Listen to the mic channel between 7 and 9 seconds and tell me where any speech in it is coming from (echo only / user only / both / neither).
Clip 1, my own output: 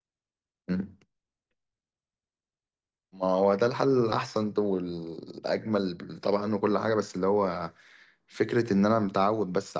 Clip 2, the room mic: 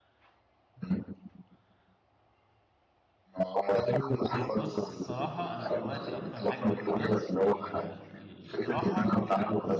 both